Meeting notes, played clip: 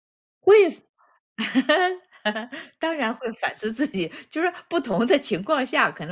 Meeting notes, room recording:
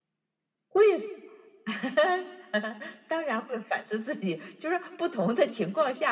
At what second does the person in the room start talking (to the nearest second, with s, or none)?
none